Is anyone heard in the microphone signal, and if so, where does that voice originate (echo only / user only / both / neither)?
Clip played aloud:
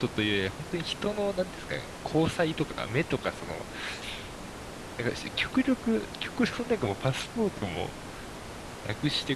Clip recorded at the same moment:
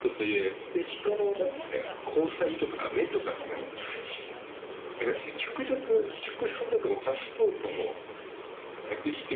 both